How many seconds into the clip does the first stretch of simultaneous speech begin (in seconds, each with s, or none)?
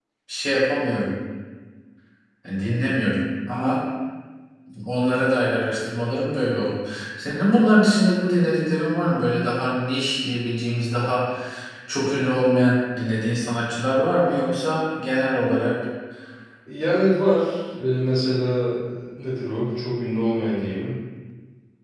none